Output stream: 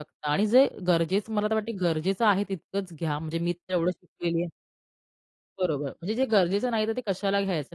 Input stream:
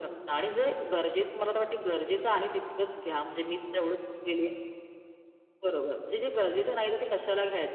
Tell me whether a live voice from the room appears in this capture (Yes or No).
No